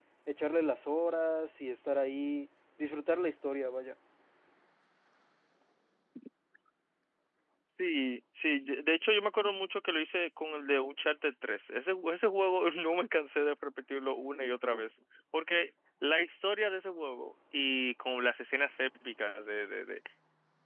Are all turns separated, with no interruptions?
Yes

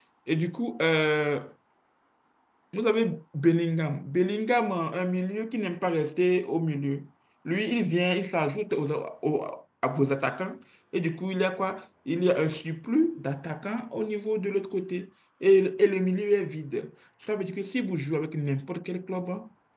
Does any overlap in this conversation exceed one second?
No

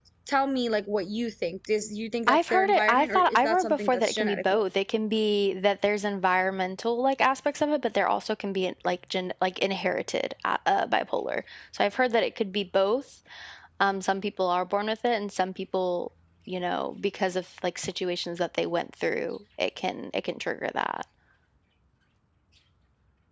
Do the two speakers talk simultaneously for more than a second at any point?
Yes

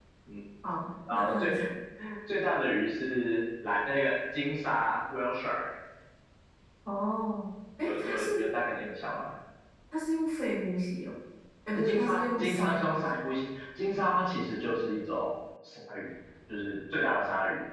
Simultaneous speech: Yes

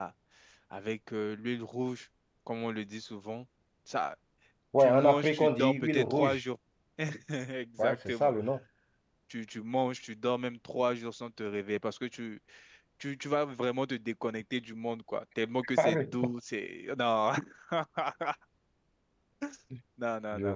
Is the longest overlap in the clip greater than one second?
Yes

